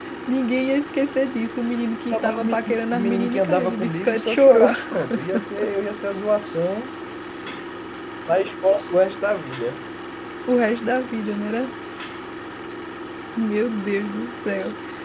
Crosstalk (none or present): present